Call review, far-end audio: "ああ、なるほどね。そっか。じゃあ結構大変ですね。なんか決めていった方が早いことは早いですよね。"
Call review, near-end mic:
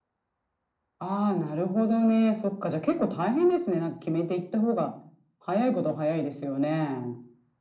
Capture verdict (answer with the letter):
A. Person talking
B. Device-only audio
B